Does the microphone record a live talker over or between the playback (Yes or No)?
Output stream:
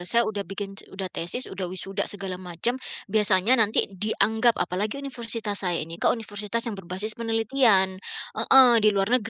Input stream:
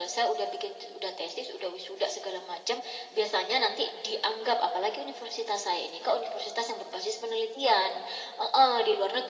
No